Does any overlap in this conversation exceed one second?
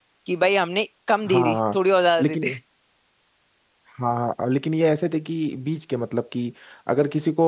No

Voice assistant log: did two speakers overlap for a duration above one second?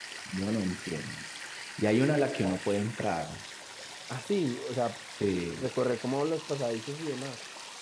No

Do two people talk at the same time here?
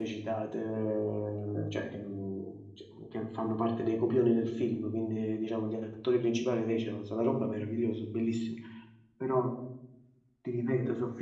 No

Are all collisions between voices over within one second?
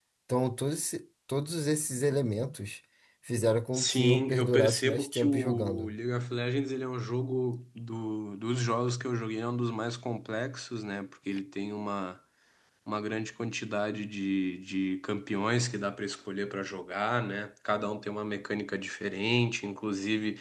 No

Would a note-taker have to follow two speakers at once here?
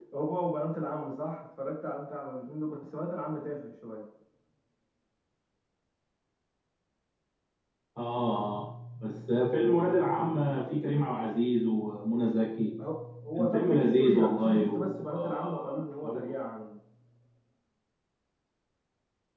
Yes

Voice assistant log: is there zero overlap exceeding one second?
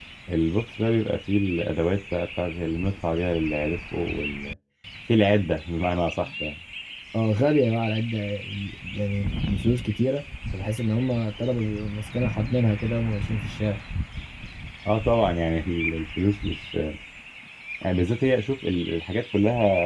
Yes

